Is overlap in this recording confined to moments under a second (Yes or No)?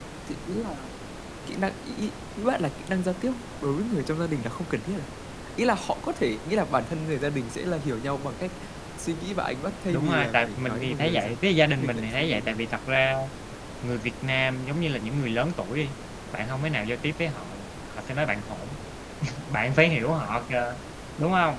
No